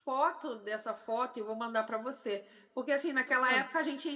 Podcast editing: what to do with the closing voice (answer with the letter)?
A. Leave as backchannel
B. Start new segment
A